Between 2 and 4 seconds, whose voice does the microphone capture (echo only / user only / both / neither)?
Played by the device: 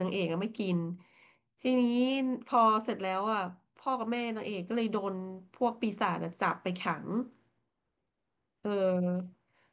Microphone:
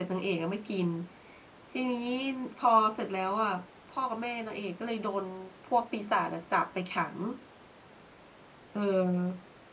echo only